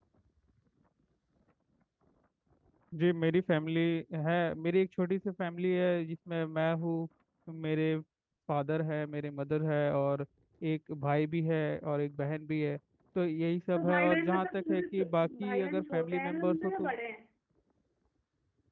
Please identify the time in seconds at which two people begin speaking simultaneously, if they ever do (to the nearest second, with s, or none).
14 s